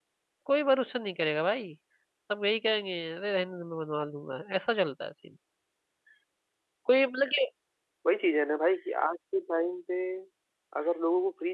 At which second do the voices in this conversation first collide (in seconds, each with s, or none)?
none